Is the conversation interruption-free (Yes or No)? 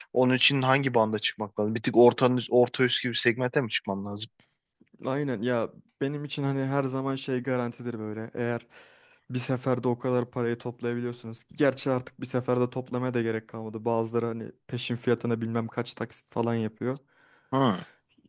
Yes